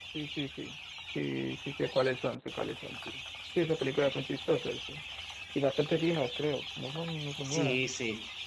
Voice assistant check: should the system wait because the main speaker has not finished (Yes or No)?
No